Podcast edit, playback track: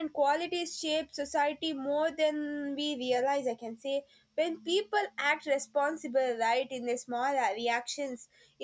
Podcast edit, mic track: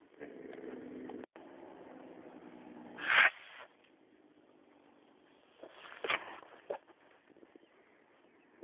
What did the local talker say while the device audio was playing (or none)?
none